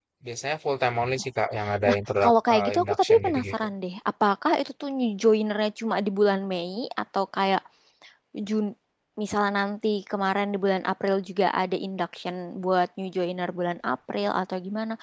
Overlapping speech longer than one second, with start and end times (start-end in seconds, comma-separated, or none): 1.9-3.5